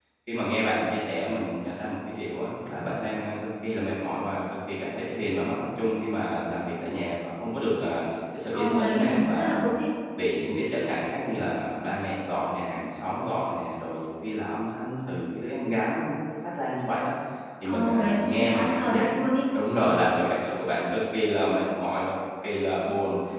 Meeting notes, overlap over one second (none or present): present